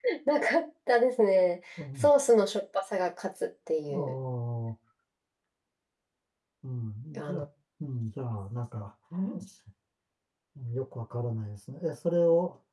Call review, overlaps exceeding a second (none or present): none